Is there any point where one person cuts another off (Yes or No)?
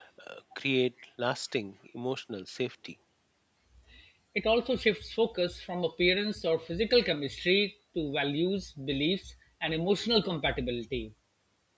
No